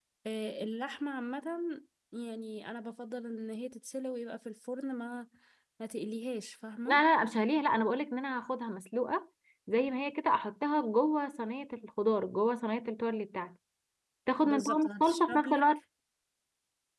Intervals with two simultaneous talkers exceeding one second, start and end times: 14.4-15.7

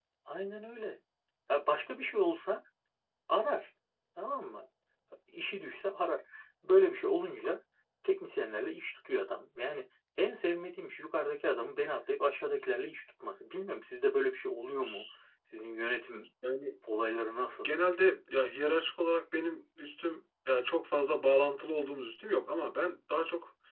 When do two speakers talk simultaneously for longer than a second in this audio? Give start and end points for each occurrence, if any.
none

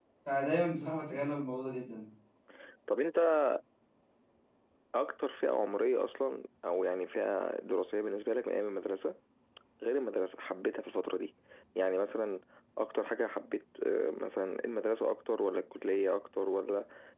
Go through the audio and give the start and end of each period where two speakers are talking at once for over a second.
none

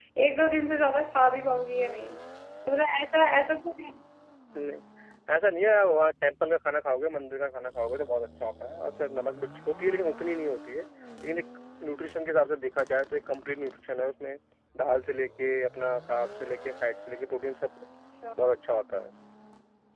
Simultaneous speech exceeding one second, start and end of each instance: none

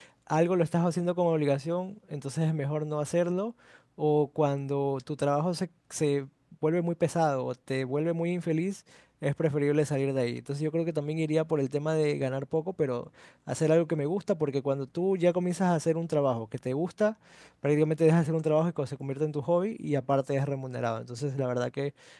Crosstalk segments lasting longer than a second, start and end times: none

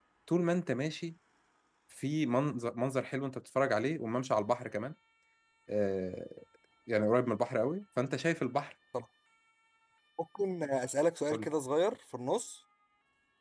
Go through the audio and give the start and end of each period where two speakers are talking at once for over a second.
none

